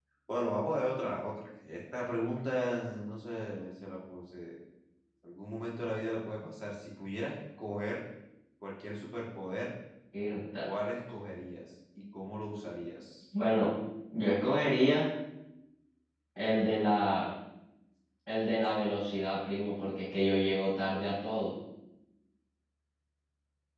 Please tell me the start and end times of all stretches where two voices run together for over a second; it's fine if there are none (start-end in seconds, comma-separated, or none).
none